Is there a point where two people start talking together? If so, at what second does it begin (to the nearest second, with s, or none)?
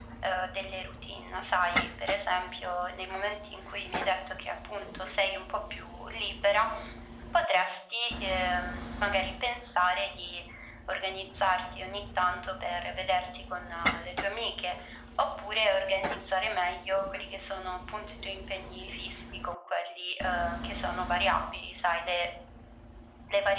none